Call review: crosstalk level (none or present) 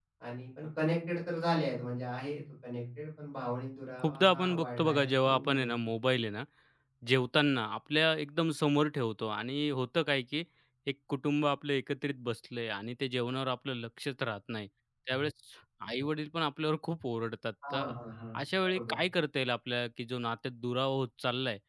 present